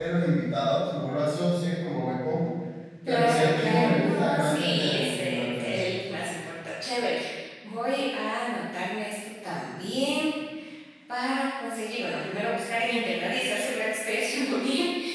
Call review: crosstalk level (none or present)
present